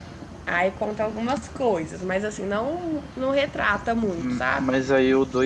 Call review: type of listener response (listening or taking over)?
taking over